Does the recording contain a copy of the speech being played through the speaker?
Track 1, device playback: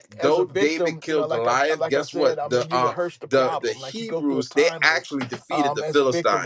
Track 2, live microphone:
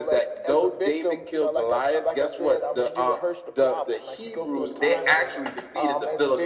Yes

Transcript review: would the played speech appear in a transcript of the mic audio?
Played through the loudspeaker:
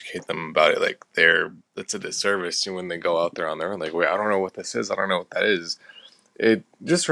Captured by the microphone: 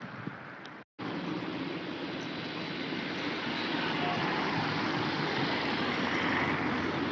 No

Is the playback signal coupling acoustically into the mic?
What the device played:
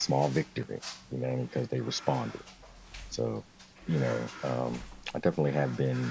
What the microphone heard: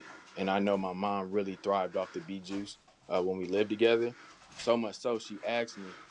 No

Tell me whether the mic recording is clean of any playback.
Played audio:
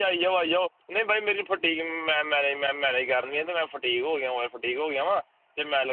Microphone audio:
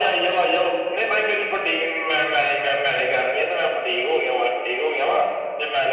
No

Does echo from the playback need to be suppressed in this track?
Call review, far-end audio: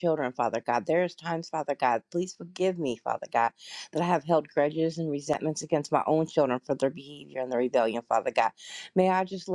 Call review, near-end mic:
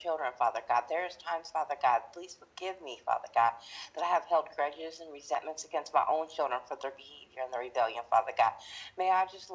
Yes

